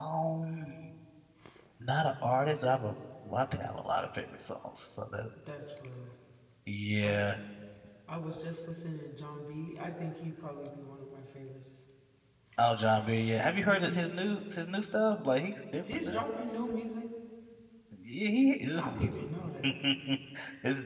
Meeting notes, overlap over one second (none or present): none